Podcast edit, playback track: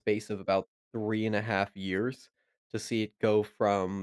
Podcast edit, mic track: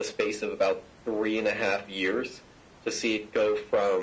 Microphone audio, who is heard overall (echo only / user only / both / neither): echo only